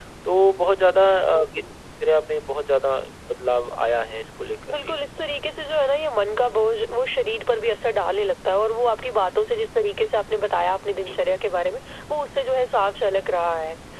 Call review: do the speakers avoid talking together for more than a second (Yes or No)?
Yes